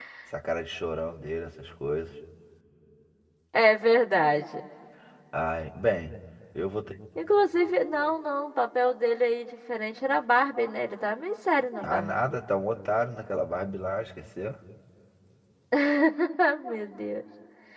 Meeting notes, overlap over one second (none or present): none